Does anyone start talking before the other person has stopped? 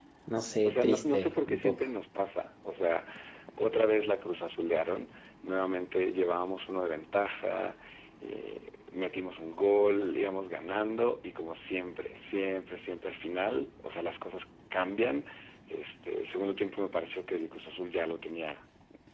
Yes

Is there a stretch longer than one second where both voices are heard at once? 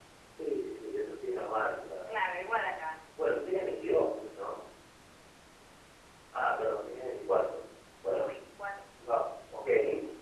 No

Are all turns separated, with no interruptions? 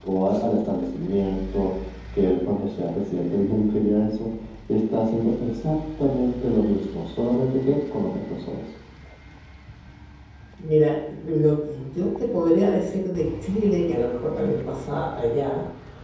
Yes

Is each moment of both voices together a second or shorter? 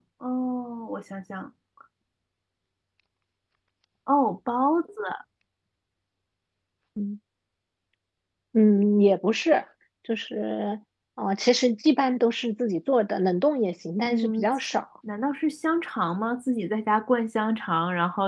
Yes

